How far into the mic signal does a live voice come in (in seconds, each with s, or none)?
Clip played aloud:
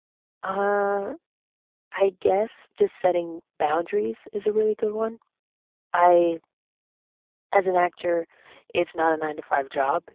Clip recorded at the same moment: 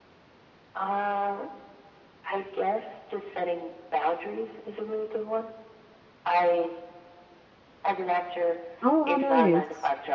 8.8 s